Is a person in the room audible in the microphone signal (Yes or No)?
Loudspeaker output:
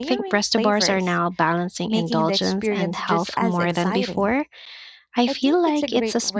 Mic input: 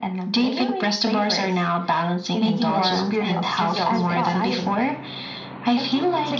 Yes